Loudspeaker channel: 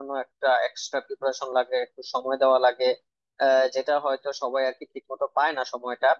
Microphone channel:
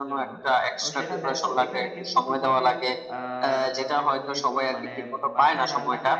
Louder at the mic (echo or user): echo